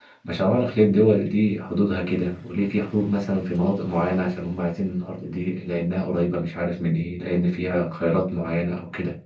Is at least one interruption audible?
No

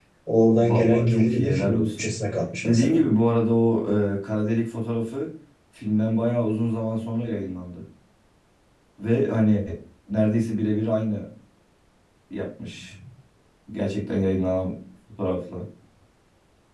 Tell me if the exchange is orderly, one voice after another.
No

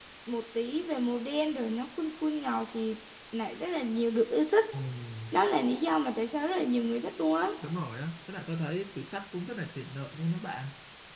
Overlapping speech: No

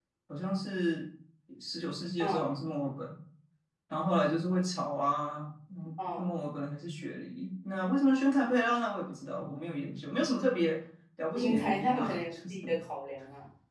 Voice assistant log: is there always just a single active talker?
No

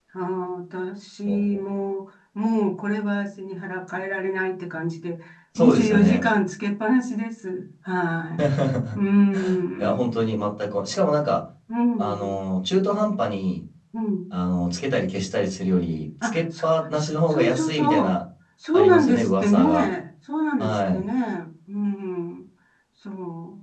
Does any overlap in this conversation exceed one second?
Yes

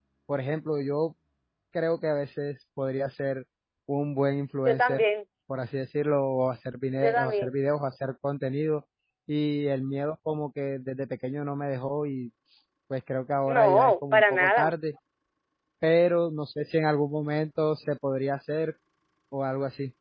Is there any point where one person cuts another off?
Yes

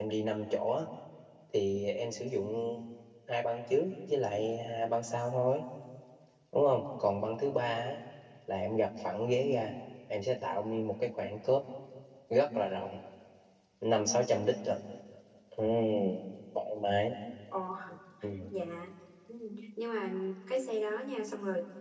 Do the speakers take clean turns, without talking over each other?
Yes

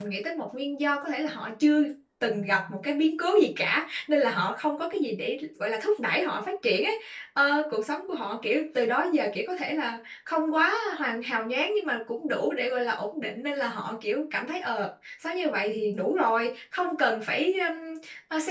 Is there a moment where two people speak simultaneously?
No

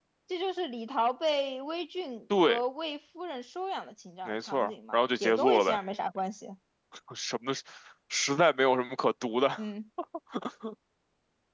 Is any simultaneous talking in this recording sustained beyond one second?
Yes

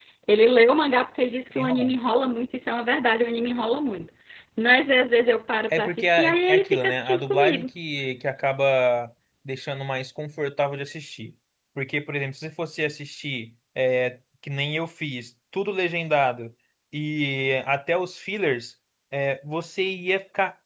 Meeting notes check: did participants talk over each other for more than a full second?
Yes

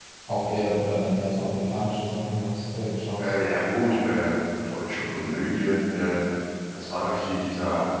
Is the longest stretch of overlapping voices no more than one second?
Yes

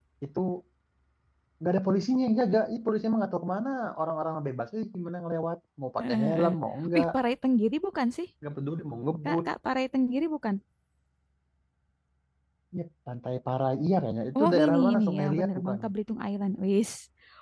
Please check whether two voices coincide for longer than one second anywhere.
Yes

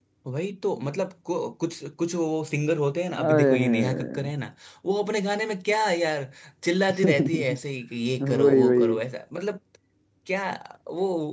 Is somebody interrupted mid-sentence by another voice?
Yes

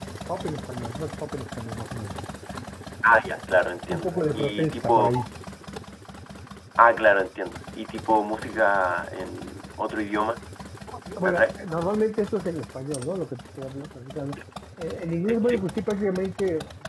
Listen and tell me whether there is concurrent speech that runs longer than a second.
Yes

